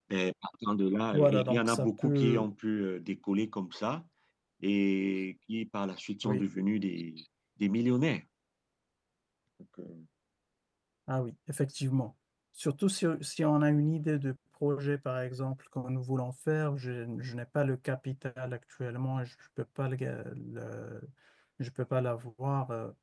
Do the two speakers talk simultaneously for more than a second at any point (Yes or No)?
Yes